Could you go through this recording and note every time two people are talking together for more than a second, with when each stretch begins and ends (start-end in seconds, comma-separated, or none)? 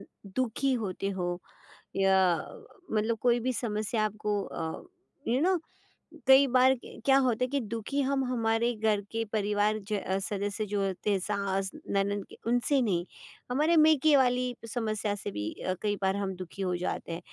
none